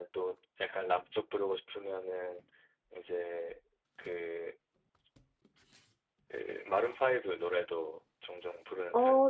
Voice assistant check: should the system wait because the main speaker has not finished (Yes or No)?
No